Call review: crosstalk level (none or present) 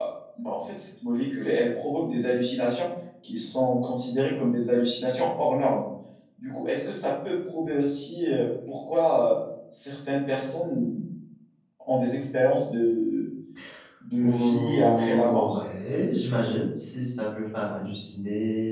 present